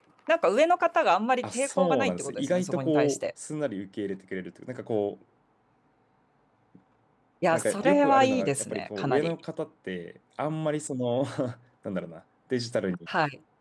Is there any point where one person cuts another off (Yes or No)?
Yes